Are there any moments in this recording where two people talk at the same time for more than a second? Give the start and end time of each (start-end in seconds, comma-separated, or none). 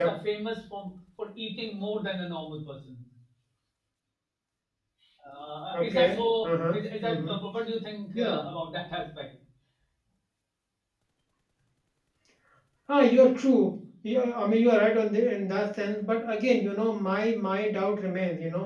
5.7-7.4